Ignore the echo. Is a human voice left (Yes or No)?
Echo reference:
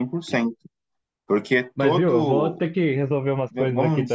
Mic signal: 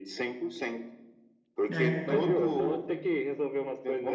Yes